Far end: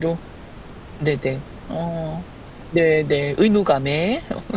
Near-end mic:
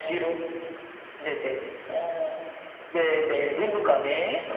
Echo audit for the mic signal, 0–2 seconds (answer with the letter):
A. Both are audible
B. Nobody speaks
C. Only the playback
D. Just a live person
C